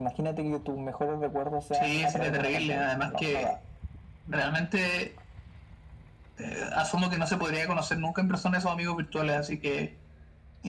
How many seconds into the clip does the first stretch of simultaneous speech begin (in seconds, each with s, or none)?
1.7 s